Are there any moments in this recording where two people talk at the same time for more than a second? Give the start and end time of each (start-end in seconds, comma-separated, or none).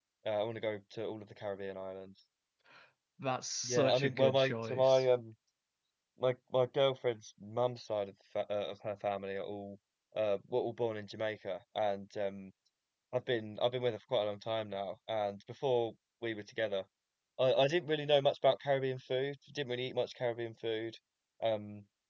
3.6-5.0